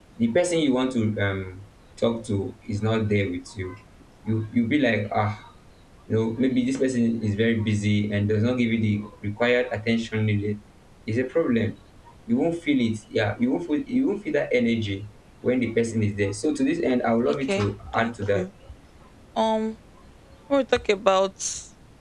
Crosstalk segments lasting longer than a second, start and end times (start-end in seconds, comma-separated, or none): 17.2-18.4